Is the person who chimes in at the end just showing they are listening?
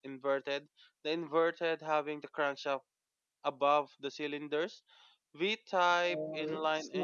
No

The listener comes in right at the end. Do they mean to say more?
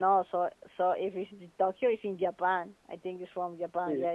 Yes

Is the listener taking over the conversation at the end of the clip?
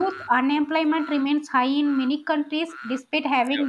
No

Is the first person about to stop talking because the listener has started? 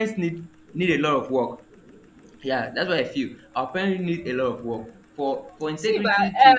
Yes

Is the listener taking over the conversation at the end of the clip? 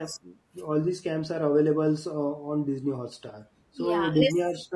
No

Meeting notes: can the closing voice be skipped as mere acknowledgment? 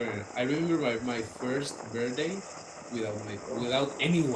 Yes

